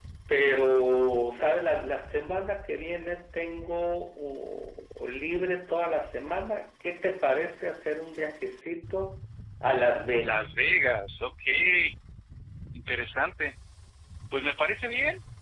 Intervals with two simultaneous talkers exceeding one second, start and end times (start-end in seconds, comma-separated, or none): none